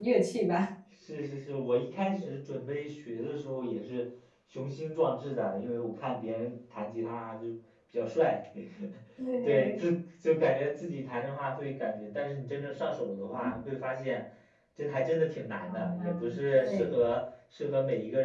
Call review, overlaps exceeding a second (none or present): present